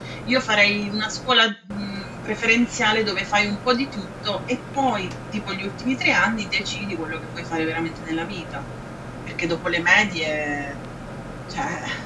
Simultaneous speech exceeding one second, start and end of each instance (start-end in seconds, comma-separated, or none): none